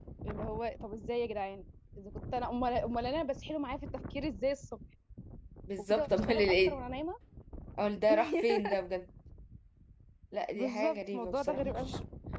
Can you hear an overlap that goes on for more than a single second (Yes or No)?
Yes